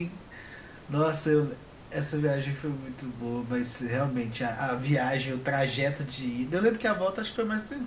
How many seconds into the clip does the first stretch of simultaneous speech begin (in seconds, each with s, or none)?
none